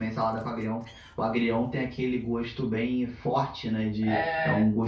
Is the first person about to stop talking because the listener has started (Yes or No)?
No